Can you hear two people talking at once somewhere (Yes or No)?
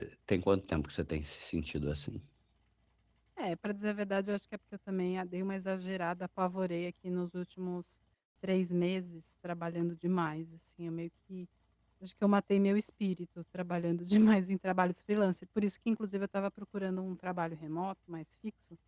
No